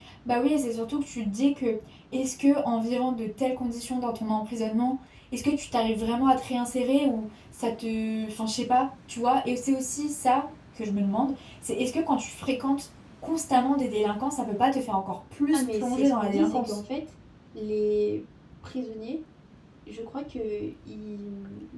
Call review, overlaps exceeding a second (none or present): present